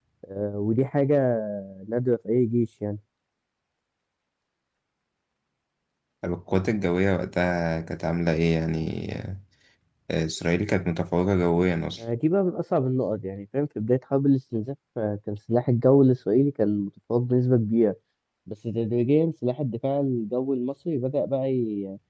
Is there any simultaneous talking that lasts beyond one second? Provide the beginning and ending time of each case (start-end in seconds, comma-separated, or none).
none